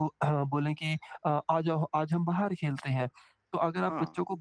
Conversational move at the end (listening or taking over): listening